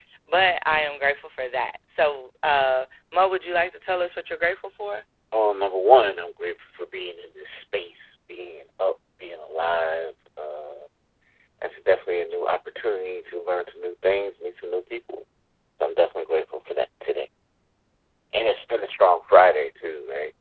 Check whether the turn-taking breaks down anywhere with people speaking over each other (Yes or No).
No